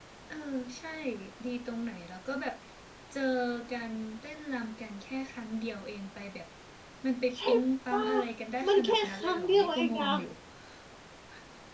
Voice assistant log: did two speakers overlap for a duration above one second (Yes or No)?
Yes